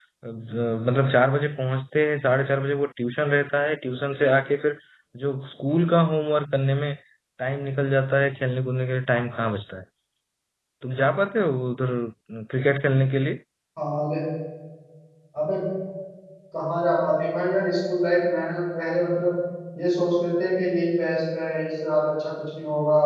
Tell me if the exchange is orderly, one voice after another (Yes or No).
Yes